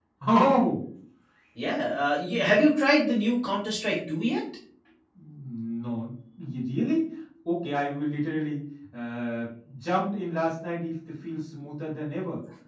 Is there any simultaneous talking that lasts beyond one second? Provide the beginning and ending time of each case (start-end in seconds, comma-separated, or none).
none